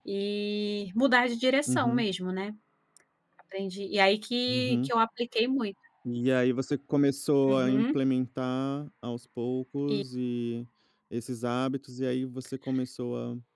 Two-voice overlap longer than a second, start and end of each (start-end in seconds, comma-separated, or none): none